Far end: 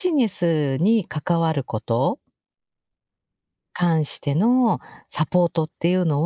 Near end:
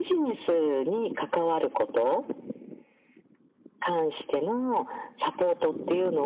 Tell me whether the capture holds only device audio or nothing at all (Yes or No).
Yes